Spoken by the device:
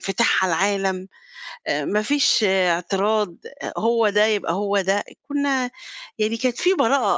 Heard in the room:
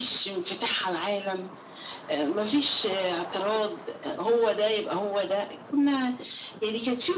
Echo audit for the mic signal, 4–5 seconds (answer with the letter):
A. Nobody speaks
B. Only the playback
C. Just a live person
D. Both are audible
B